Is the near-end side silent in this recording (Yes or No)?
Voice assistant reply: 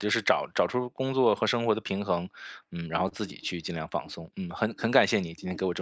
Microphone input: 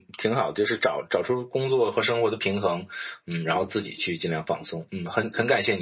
Yes